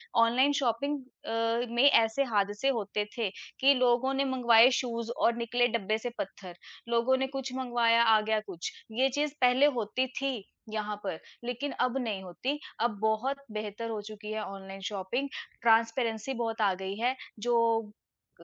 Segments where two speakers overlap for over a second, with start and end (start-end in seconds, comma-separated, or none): none